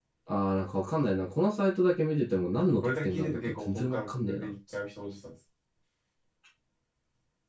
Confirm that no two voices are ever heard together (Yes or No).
No